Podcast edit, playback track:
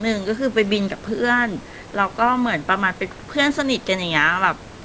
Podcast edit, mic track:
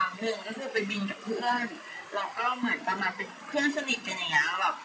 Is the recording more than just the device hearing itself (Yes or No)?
No